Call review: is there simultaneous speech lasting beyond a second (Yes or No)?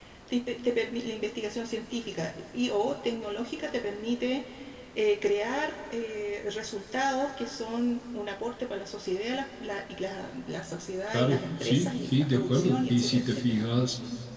Yes